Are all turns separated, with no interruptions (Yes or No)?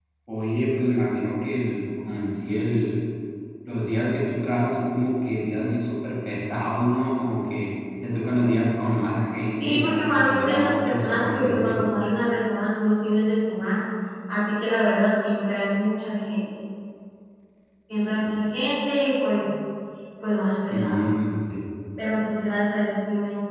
No